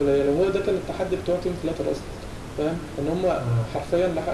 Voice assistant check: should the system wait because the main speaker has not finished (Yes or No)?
Yes